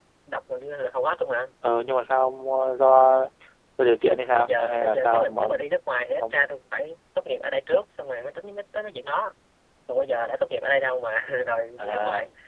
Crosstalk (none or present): present